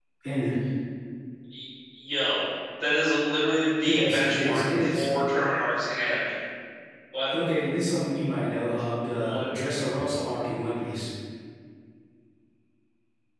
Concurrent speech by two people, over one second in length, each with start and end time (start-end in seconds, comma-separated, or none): 3.8-5.1